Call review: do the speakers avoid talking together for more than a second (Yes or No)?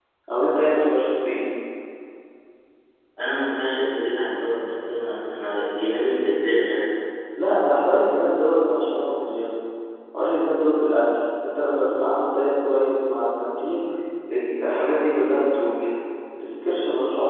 Yes